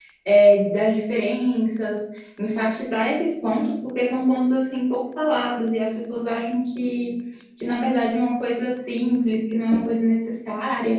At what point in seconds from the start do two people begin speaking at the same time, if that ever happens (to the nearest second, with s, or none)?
none